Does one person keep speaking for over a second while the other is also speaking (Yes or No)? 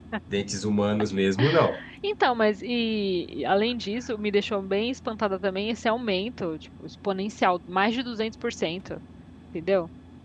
No